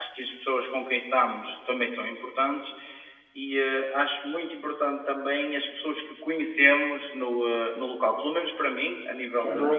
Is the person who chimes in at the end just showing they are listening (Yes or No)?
Yes